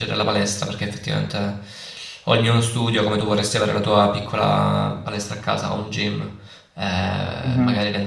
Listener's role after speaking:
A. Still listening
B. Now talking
A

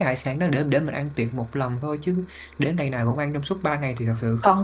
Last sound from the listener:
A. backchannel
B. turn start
B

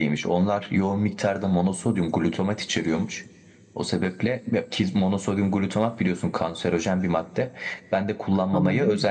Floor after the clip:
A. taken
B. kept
B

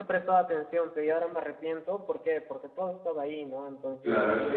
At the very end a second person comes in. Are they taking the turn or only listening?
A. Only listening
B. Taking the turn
B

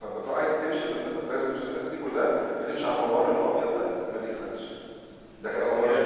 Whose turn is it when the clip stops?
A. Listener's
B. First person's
B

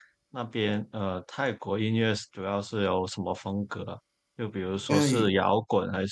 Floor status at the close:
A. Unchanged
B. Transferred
A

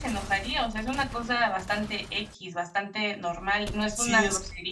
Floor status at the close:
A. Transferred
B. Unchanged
A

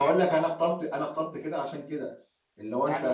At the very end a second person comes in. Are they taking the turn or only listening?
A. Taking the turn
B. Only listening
A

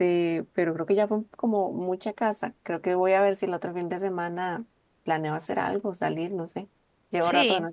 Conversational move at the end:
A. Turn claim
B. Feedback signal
A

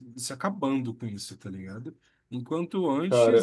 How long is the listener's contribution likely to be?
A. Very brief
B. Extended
A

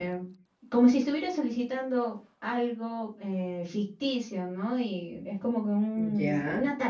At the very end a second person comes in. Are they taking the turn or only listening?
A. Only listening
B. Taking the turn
A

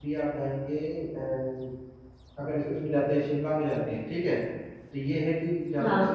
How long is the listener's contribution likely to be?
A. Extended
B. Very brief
B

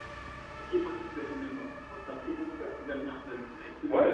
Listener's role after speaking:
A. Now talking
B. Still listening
A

